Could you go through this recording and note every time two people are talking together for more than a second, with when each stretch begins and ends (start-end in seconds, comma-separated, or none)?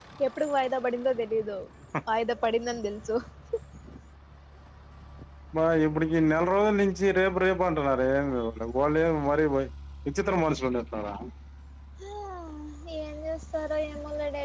none